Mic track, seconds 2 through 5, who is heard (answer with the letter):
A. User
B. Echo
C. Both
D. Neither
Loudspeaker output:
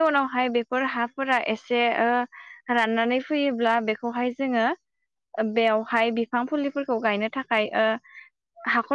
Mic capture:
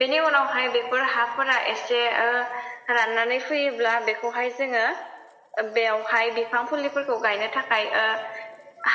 B